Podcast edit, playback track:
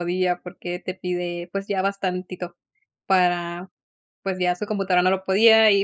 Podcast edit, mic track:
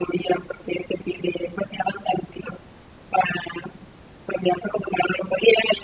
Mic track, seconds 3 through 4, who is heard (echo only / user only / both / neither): echo only